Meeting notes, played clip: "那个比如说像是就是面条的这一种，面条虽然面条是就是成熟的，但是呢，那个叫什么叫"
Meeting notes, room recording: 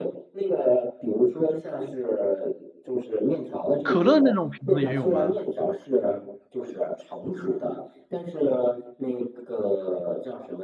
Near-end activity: present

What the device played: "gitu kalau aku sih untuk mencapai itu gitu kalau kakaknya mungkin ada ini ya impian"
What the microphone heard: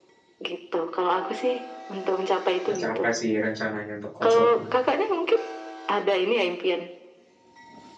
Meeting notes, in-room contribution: present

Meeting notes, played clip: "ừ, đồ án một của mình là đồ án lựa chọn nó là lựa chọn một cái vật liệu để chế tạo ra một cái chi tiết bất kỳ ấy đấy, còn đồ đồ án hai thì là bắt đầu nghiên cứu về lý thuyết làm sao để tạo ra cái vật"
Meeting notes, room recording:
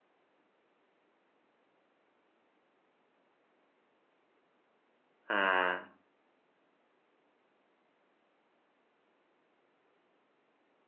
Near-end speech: present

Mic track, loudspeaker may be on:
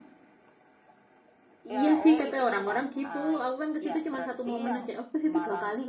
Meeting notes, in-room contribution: present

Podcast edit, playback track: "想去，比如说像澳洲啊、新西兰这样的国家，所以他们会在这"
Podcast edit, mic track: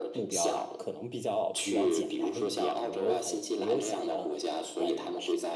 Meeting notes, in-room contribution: present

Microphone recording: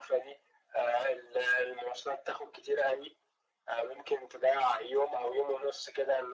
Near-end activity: none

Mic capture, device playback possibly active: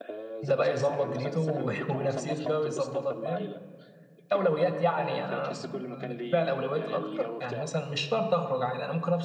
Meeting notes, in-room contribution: present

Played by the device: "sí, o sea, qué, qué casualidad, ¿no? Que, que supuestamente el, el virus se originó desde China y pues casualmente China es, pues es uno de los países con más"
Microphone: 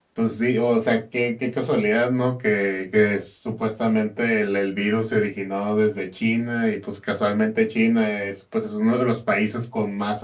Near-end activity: none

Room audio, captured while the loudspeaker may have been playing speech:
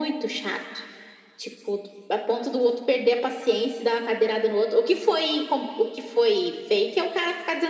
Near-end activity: none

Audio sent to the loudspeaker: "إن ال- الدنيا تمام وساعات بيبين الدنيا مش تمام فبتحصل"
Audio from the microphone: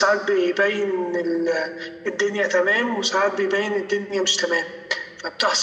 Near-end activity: none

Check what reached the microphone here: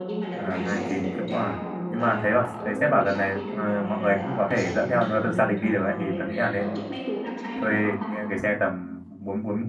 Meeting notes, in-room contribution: present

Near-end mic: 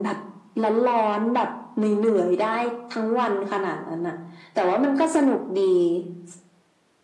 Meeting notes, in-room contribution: none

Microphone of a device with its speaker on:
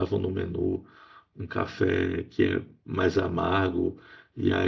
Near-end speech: present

